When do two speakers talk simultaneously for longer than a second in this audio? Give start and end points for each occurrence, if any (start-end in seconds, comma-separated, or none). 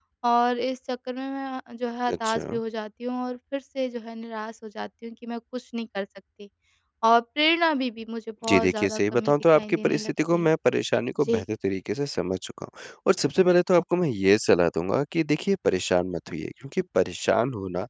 8.5-10.5